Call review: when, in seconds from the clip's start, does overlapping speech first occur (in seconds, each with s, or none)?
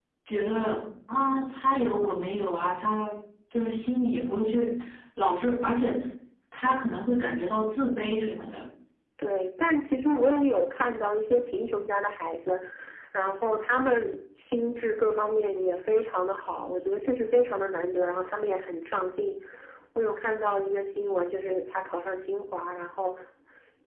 none